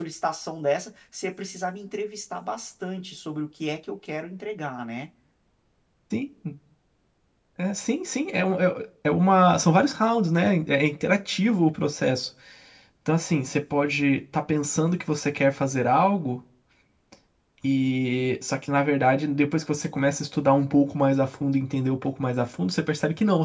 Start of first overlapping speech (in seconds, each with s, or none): none